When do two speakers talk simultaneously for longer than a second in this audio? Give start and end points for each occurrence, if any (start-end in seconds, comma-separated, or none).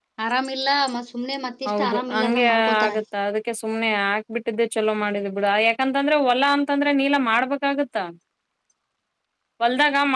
1.7-2.9